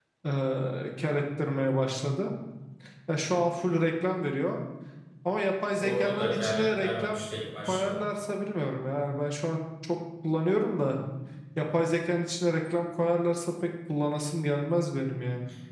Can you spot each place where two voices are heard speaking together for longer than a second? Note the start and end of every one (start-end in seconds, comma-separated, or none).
5.8-7.2